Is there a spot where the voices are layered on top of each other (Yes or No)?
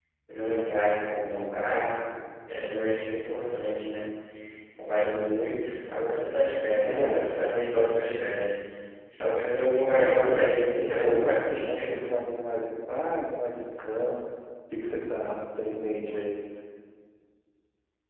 Yes